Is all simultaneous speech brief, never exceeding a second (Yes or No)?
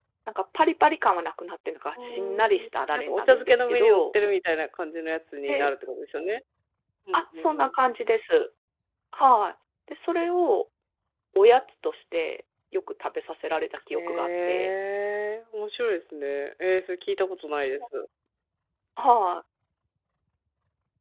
No